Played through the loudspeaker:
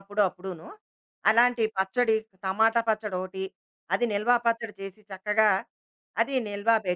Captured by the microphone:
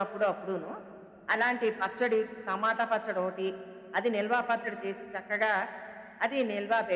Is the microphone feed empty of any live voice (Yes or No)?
Yes